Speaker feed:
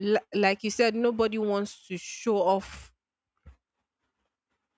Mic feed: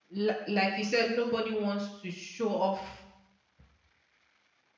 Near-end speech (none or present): none